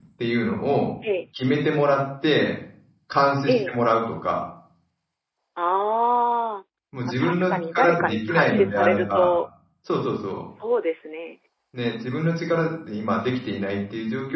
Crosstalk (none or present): present